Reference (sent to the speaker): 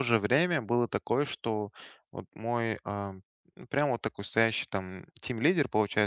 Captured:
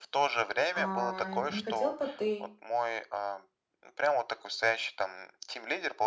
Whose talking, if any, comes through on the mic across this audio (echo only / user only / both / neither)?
both